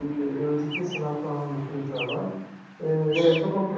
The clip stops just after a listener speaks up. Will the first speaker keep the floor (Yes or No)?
Yes